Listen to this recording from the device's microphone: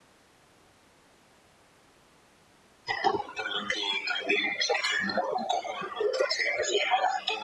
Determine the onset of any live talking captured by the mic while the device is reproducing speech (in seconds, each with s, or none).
none